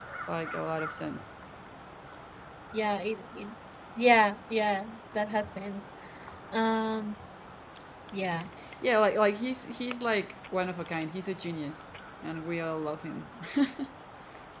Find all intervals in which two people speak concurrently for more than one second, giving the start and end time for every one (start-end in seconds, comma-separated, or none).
none